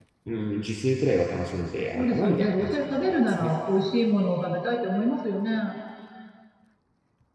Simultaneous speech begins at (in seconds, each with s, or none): 1.9 s